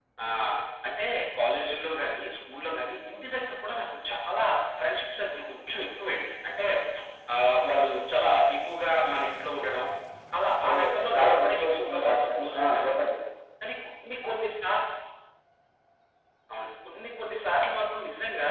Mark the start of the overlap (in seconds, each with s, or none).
10.7 s